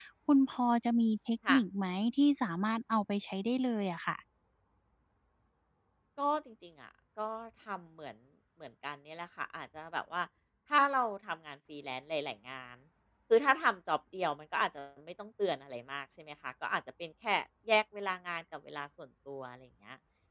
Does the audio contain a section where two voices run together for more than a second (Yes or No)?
No